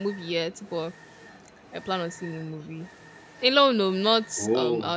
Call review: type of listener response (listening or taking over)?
listening